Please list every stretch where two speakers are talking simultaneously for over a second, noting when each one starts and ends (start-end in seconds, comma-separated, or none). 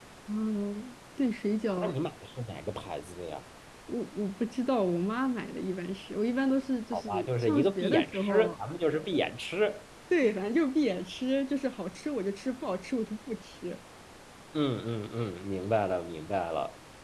6.9-8.6